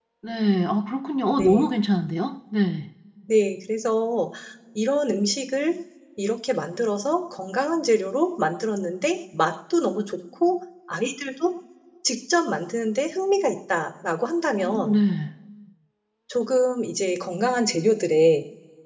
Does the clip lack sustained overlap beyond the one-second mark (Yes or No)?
Yes